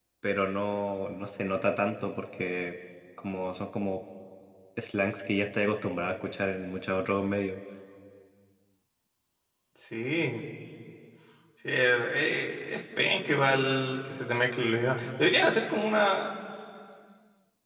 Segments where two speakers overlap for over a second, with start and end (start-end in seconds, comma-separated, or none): none